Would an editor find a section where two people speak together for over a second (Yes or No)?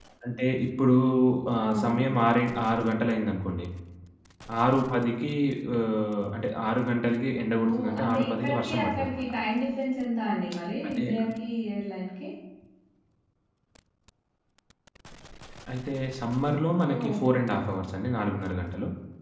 Yes